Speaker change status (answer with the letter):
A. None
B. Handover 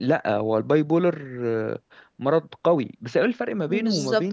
B